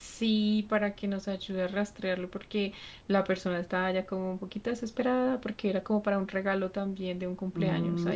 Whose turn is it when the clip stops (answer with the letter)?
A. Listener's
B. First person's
A